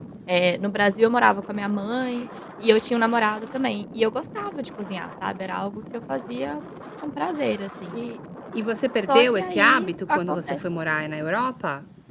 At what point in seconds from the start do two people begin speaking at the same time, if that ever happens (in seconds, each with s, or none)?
9.1 s